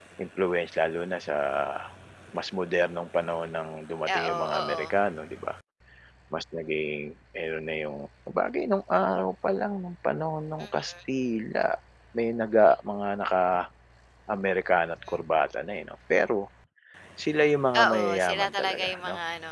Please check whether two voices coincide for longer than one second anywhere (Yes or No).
Yes